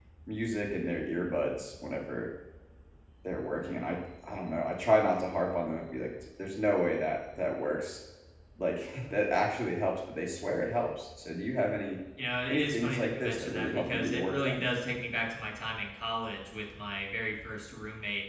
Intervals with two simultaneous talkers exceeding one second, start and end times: 12.5-14.6

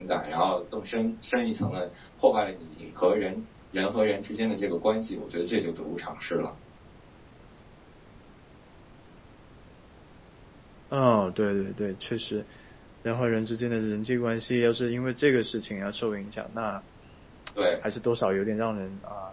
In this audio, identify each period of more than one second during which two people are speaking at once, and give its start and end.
none

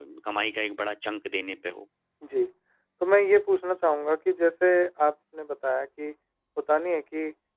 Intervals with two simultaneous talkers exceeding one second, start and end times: none

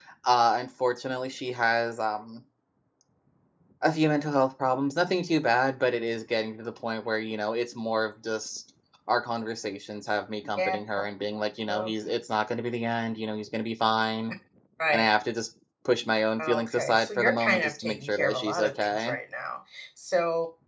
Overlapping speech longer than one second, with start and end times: 16.4-19.2

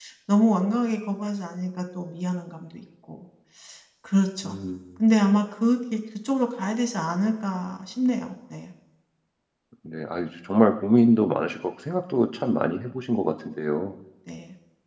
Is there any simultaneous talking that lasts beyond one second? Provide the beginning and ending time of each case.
none

